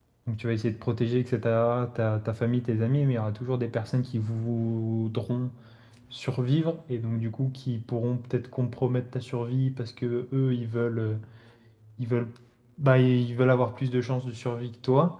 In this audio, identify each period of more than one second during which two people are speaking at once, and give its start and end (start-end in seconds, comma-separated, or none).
none